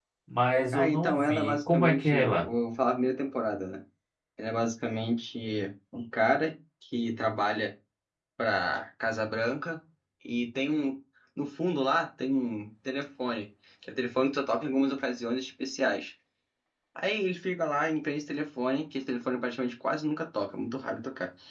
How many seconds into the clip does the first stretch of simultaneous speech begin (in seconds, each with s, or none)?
0.7 s